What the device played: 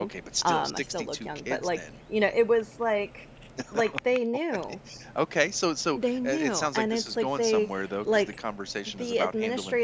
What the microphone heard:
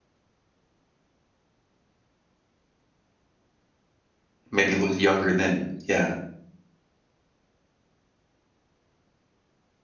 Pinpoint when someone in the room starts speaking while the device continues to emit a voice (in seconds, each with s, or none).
4.5 s